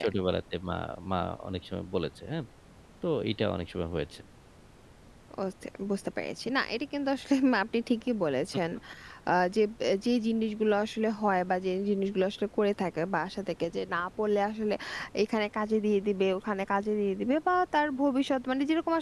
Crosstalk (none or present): none